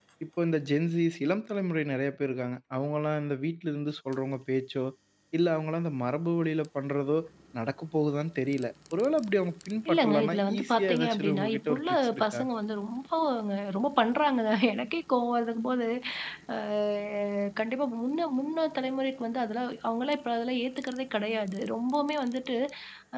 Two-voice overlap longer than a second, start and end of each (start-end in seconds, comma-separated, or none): 9.9-12.4